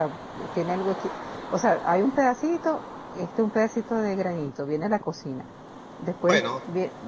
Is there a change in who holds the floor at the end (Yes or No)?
No